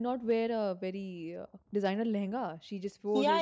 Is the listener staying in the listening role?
No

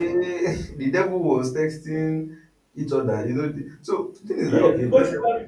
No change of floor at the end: No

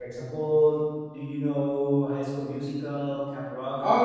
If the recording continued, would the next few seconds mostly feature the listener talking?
Yes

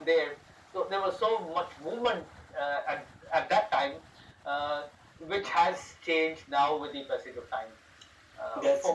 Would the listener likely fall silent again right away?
Yes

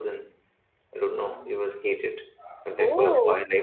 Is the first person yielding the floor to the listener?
Yes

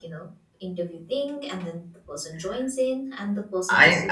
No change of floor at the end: No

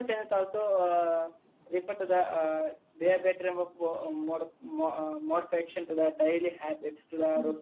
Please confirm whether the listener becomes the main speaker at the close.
No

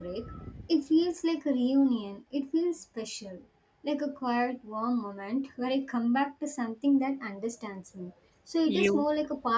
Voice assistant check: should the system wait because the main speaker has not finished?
Yes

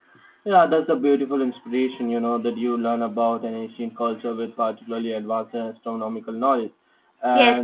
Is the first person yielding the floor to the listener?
Yes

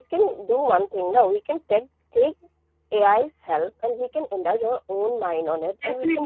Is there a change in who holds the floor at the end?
Yes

